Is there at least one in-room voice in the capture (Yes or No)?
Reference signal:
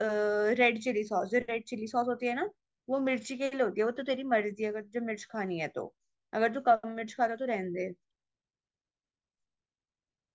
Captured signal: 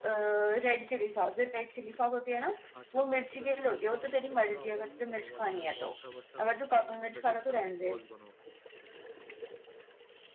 Yes